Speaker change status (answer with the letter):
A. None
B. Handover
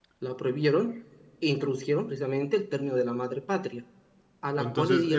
B